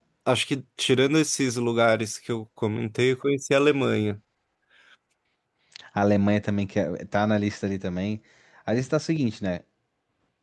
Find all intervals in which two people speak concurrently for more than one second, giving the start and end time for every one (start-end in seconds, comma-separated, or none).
none